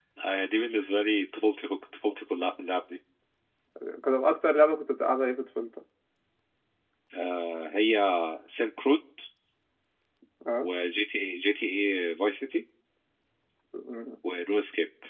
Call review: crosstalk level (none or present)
none